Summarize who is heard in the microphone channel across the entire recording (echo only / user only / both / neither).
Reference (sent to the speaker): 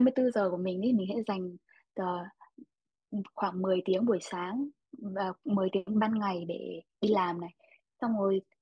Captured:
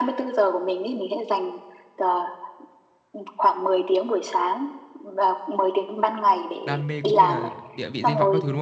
both